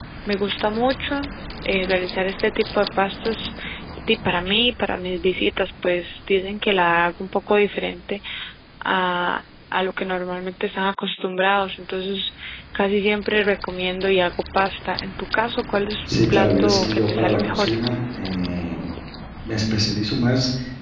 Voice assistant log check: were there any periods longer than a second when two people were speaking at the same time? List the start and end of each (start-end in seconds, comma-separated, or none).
16.3-17.7